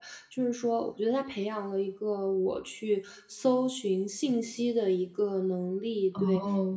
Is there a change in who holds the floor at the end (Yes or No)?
No